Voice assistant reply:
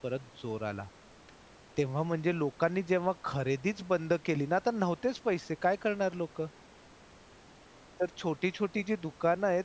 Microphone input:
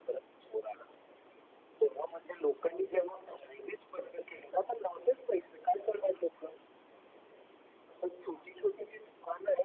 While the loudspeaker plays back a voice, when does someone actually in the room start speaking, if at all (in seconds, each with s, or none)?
none